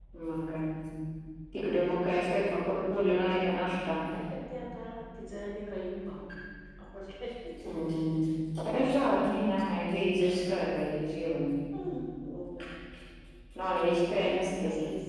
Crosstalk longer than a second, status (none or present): none